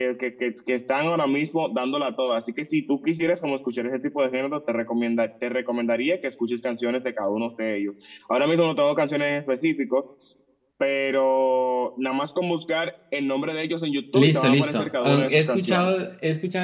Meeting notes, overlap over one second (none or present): present